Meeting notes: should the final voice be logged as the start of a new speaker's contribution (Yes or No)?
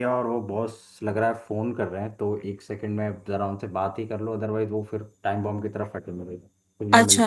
Yes